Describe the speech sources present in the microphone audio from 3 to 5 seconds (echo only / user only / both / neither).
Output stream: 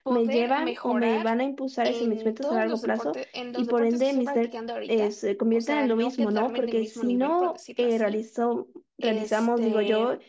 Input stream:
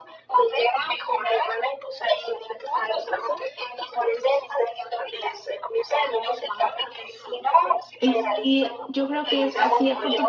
echo only